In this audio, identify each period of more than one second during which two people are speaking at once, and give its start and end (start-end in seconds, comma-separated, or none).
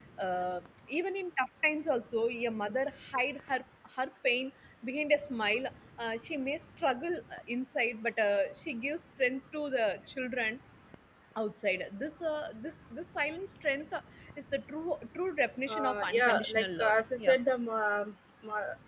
15.7-17.4